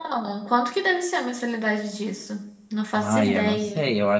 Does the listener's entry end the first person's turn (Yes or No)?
Yes